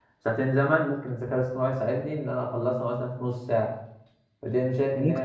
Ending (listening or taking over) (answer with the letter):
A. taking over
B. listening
B